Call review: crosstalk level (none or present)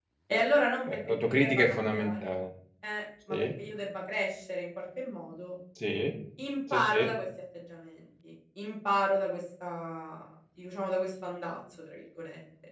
present